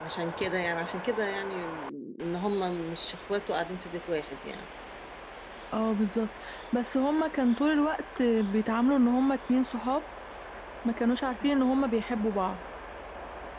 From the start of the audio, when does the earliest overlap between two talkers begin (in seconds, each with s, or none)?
none